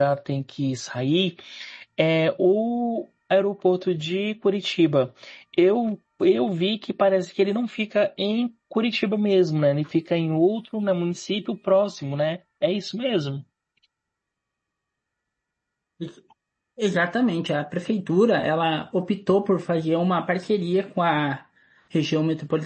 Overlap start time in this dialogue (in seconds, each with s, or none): none